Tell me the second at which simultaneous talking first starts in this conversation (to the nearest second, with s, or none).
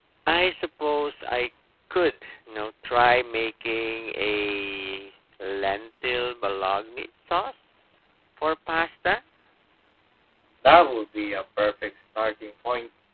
none